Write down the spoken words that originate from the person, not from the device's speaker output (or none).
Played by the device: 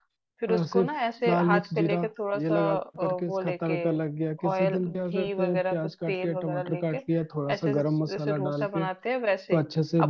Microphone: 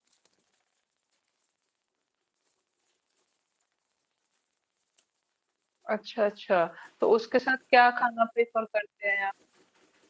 अच्छा अच्छा तो उसके साथ क्या खाना प्रेफर करते हैं आप